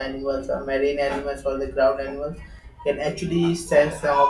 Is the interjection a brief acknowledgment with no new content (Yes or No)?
Yes